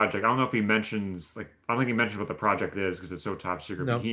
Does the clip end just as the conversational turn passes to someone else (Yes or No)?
No